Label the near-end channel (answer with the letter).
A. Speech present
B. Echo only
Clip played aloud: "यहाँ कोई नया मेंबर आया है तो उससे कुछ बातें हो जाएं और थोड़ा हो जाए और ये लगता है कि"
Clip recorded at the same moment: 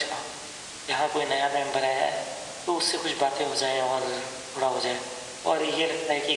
B